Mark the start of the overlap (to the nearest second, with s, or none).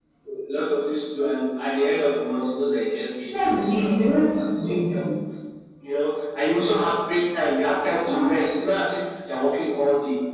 3 s